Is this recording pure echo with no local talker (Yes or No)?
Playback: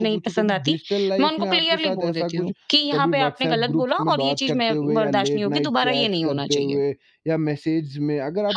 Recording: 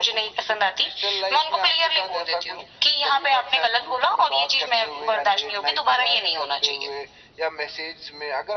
Yes